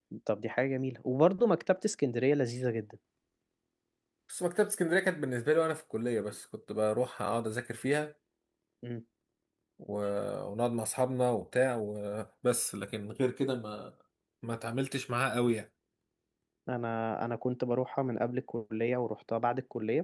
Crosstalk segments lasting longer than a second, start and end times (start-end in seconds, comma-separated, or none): none